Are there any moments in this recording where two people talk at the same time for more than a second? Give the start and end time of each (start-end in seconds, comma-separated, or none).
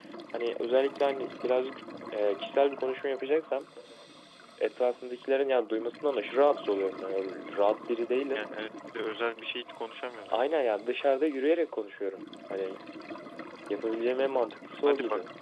none